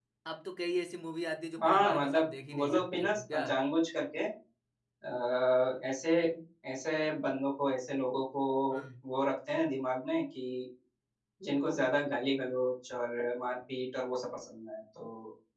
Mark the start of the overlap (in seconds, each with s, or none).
1.6 s